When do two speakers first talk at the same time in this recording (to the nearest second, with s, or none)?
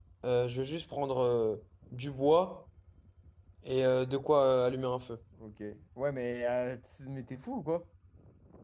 none